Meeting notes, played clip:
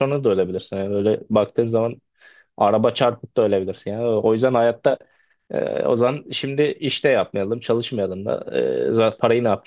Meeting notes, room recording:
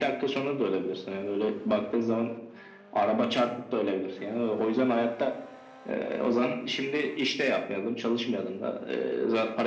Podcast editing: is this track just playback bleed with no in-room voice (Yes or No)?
Yes